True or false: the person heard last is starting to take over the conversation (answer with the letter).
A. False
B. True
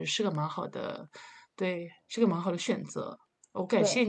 A